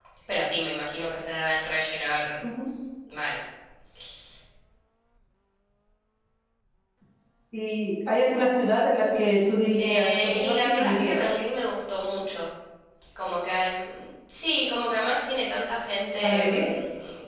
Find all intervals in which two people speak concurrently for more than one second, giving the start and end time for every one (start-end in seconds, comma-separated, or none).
9.8-11.1